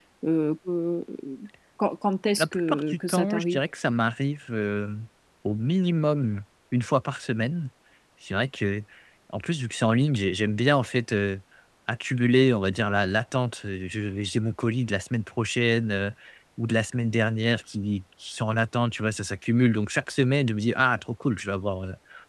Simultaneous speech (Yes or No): Yes